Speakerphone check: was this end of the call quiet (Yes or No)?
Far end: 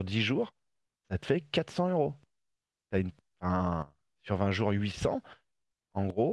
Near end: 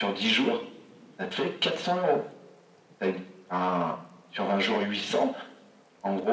Yes